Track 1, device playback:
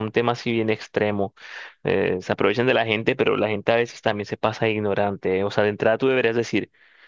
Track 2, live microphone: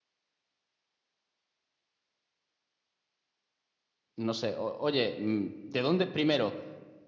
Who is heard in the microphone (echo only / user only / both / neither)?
user only